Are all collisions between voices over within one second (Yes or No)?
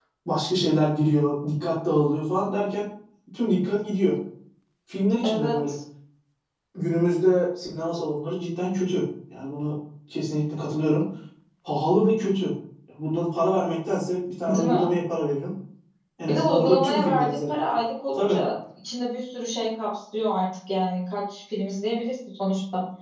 No